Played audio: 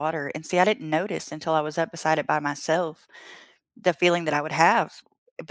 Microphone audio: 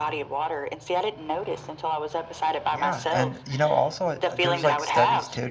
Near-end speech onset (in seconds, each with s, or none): 2.7 s